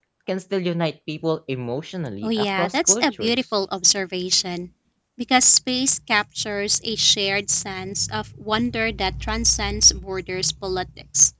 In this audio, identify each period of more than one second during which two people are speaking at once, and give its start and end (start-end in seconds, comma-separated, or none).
2.2-3.4